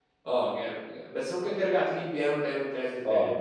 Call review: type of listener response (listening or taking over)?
taking over